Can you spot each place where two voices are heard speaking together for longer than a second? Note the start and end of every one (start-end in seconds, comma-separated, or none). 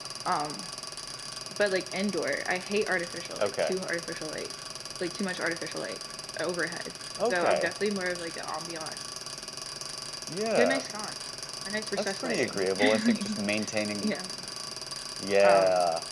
12.0-13.2